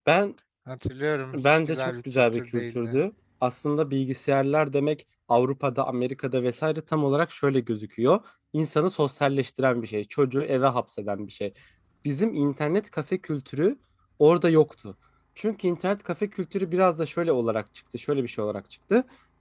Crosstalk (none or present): present